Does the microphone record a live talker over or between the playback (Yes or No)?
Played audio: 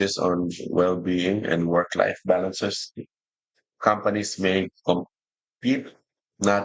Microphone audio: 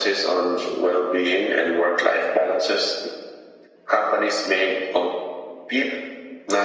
No